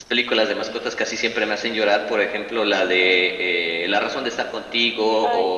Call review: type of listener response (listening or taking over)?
listening